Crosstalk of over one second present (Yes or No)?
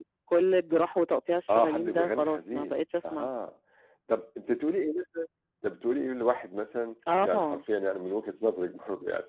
Yes